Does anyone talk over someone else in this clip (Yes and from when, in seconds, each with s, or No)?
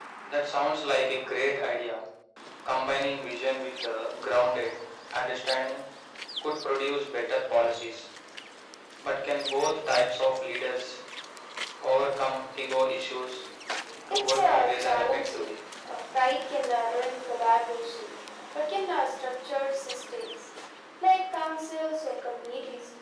Yes, from 14.1 s